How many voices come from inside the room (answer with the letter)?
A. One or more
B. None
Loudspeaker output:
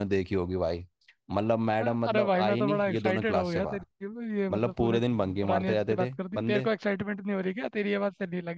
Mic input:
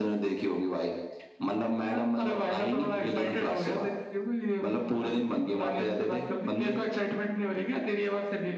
B